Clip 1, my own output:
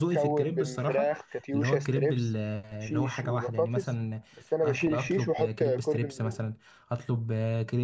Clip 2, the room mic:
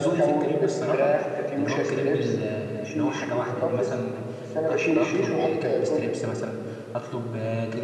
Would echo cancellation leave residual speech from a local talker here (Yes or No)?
No